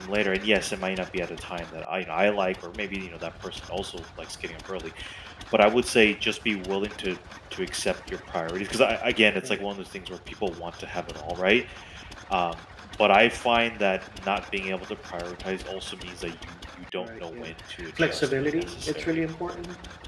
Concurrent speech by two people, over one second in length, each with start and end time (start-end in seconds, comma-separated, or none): 18.0-19.2